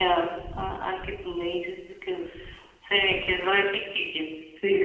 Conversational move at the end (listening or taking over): taking over